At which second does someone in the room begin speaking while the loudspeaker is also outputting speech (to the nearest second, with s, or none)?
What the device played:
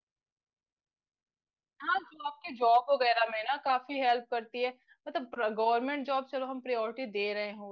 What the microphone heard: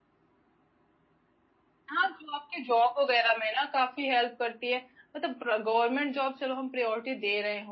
none